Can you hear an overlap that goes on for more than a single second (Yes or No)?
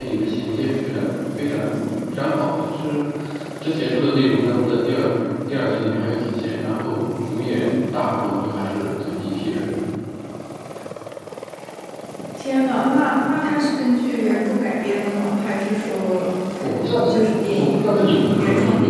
No